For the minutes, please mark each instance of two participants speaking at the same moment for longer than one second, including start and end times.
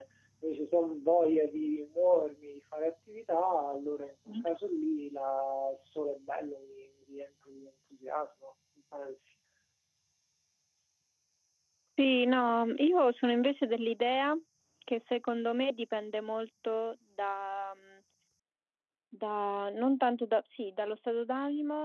none

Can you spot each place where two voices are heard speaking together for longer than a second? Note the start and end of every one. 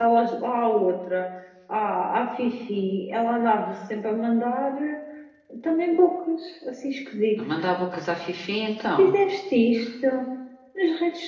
none

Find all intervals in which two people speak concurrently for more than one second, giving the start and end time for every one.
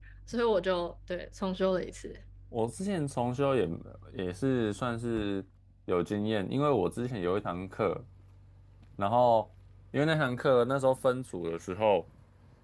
none

